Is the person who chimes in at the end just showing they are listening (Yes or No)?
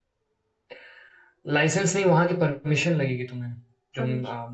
Yes